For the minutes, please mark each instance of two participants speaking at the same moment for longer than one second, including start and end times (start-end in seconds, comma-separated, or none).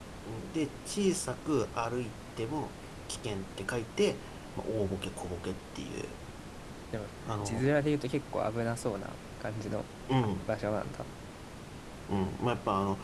none